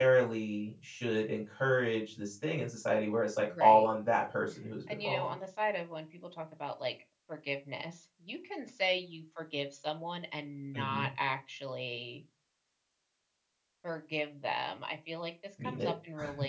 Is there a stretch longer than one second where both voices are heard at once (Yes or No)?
No